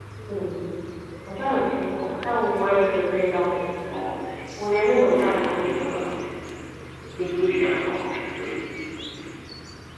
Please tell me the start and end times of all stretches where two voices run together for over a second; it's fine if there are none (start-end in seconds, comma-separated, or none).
5.1-6.3